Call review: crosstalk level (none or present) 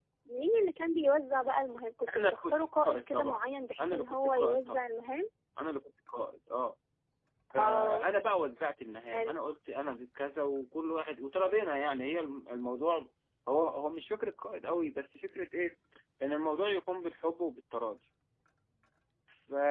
present